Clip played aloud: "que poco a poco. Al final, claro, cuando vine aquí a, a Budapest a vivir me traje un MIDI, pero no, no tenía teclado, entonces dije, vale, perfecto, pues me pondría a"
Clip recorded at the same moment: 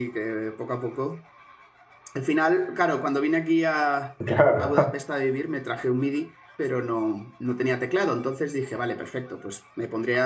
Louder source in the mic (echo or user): user